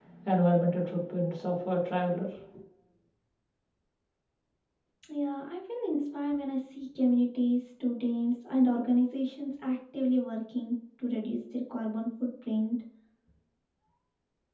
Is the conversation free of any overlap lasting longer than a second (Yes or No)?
Yes